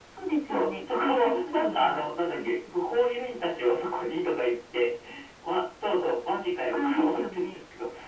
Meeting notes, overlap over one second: present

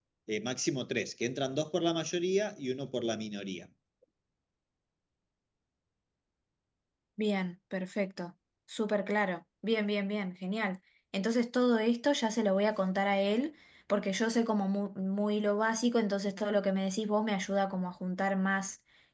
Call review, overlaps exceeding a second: none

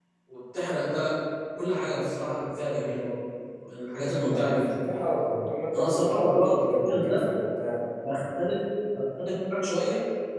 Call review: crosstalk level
present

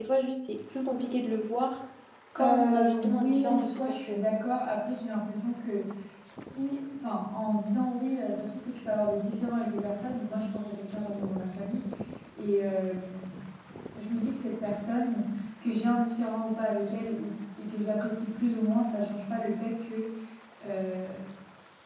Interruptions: present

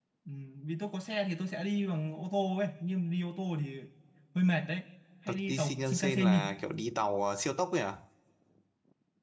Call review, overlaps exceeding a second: present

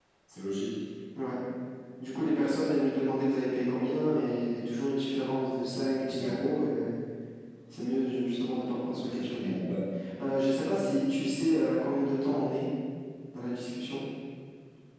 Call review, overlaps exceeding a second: none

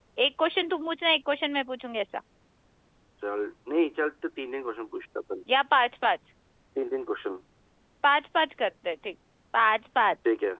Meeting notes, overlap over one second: none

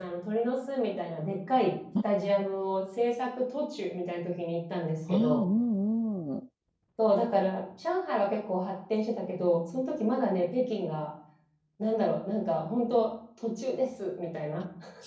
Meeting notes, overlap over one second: none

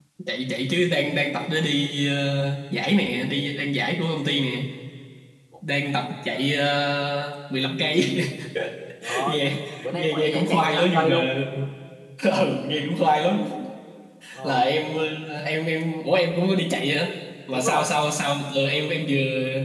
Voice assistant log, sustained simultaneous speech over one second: present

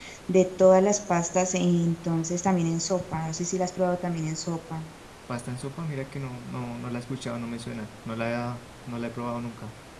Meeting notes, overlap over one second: none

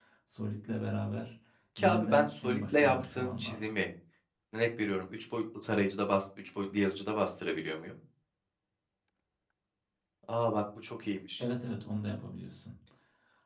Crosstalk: present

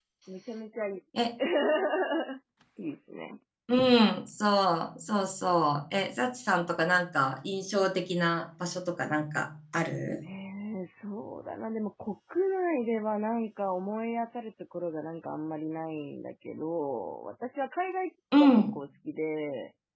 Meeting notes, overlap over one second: none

